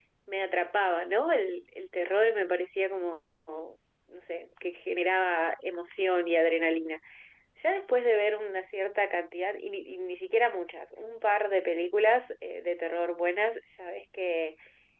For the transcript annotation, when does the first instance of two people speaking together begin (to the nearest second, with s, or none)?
none